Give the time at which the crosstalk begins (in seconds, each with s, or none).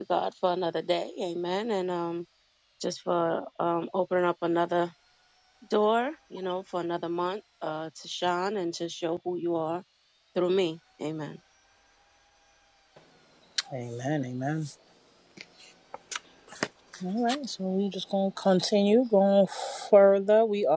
none